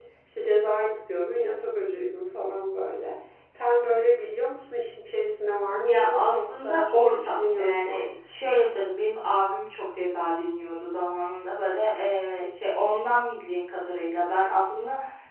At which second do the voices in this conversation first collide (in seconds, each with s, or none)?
5.6 s